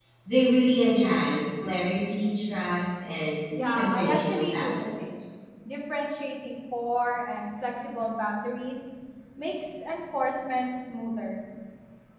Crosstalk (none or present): present